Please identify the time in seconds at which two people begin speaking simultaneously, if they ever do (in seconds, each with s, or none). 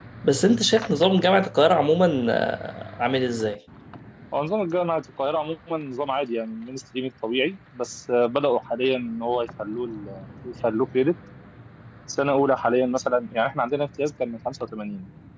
none